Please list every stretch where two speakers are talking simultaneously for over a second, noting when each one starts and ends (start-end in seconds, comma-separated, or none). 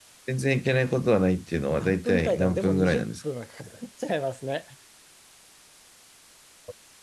1.8-3.1